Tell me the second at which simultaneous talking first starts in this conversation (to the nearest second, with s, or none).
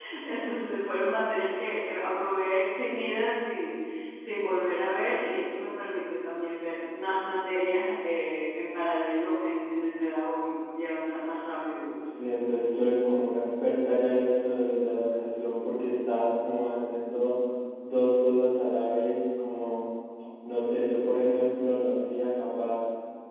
none